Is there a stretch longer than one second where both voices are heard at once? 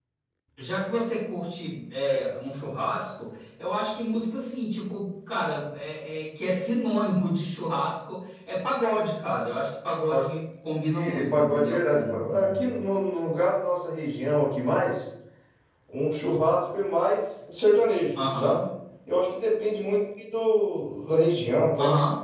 Yes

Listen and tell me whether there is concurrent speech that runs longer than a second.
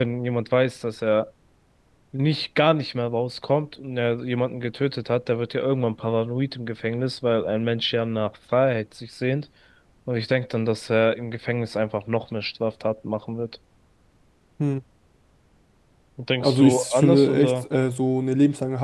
Yes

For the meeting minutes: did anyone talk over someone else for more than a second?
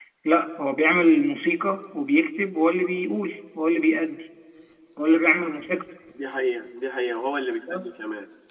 No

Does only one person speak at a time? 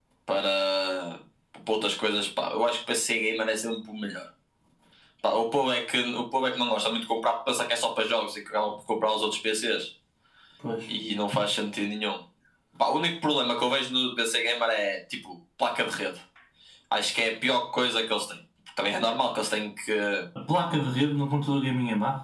Yes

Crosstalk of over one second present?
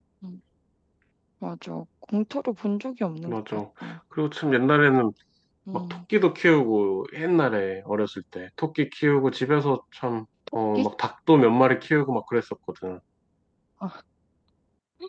No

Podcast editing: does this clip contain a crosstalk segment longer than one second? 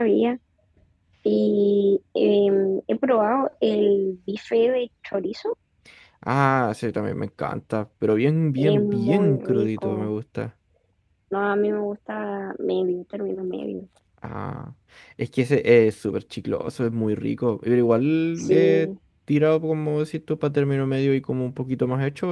Yes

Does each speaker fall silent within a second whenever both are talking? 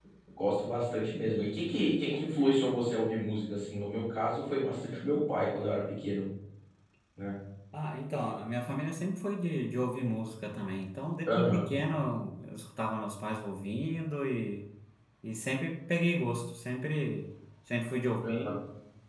Yes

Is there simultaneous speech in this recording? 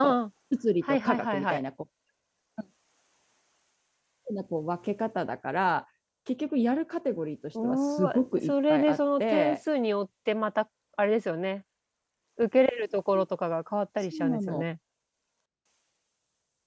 Yes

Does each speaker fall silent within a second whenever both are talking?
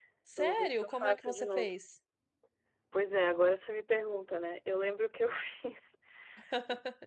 No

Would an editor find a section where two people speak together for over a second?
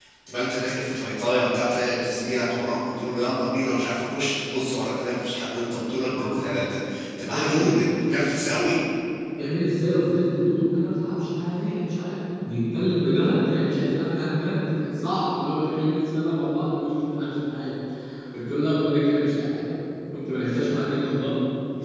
No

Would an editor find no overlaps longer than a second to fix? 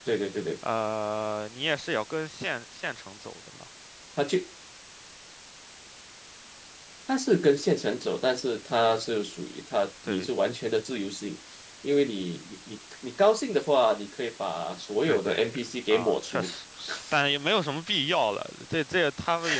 No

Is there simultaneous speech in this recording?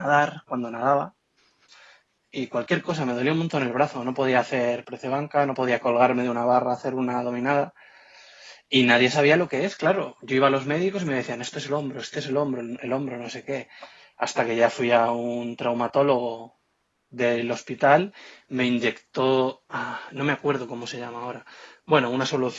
No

